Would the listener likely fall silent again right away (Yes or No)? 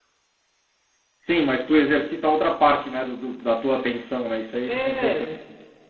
No